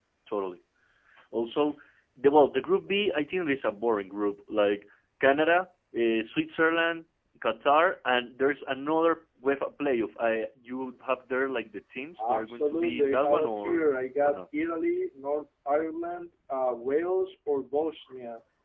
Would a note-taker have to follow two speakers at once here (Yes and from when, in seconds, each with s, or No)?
Yes, from 12.2 s